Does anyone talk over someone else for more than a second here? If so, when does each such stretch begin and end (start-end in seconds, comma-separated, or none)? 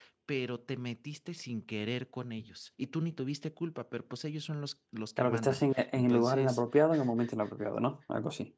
5.2-6.6